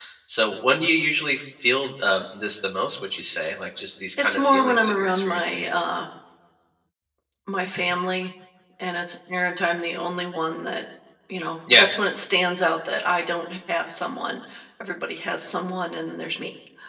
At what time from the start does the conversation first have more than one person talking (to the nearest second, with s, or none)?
4 s